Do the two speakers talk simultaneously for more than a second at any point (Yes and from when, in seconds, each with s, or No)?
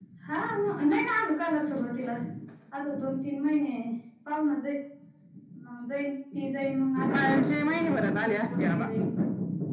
Yes, from 7.1 s